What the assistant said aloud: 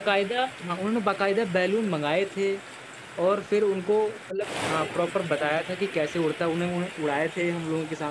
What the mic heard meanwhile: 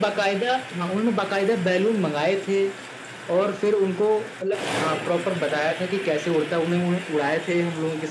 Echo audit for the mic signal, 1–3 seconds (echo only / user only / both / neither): echo only